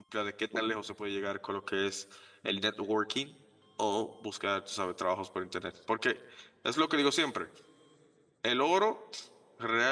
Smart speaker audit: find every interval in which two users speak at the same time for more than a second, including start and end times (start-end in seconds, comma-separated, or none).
none